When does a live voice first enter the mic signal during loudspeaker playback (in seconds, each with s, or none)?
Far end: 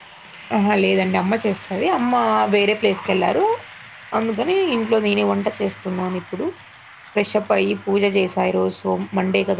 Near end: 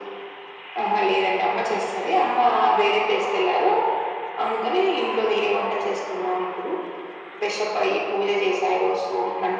none